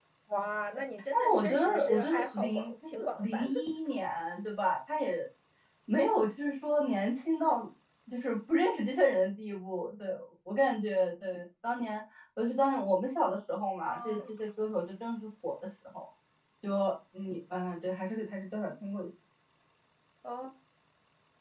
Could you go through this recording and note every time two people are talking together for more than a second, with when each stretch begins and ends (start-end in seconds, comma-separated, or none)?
1.1-3.5